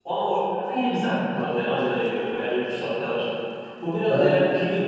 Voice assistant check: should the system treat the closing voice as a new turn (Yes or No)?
No